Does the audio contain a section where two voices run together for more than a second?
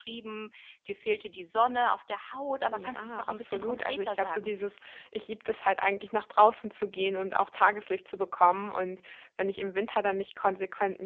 Yes, from 2.7 s

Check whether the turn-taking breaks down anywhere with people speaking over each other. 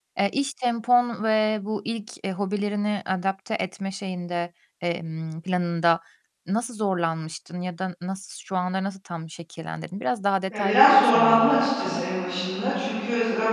Yes, from 10.5 s

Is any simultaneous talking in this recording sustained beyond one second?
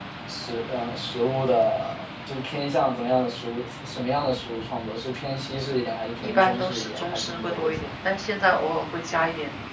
Yes, from 6.2 s

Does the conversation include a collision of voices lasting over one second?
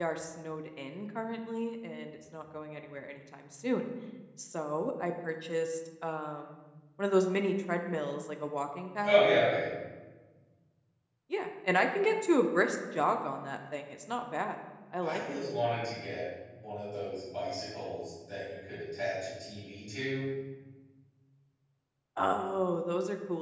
No

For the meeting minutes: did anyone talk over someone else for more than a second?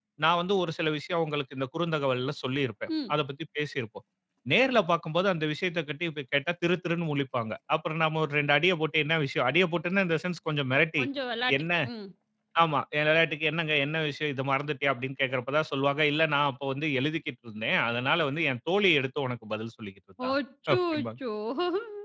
No

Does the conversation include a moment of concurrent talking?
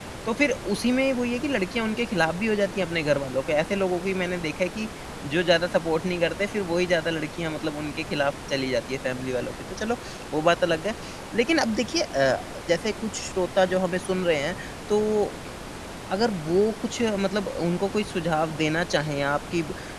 No

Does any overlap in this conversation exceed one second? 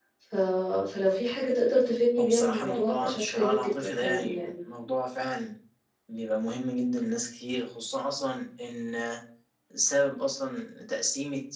Yes, from 2.2 s

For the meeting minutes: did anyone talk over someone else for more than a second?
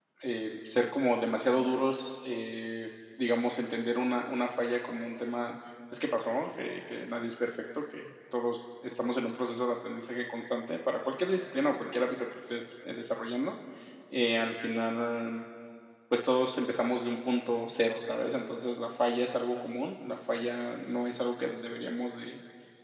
No

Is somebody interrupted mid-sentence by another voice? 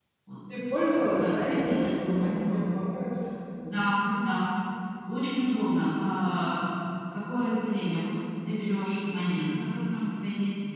Yes, from 0.9 s

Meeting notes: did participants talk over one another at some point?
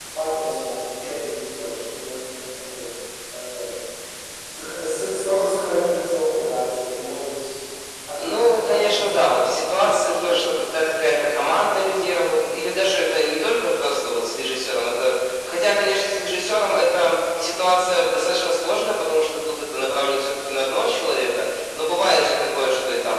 Yes, from 8.2 s

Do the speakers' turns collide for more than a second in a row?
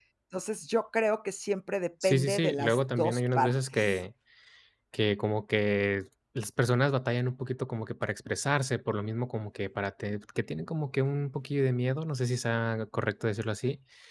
Yes, from 2.0 s

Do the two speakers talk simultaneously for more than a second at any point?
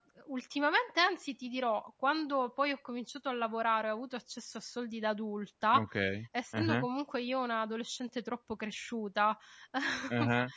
No

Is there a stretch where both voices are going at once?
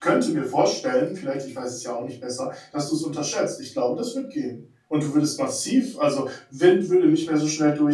No

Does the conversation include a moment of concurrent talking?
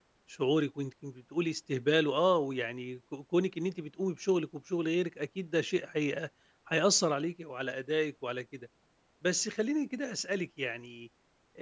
No

